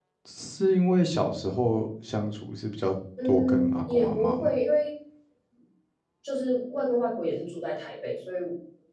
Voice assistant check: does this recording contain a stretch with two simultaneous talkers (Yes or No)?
Yes